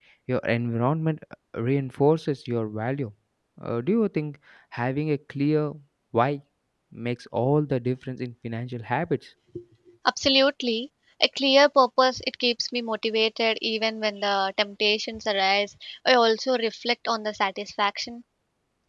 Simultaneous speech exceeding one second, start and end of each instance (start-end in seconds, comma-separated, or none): none